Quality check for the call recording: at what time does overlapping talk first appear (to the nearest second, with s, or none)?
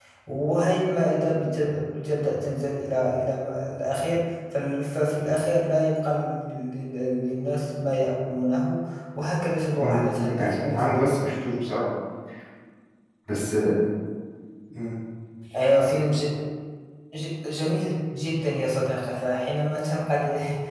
10 s